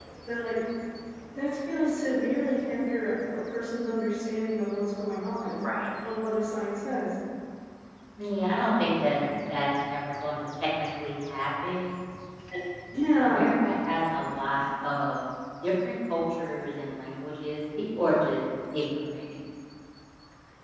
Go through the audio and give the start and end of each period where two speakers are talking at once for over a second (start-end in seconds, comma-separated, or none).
none